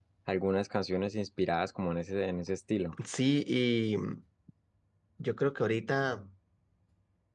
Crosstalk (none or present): none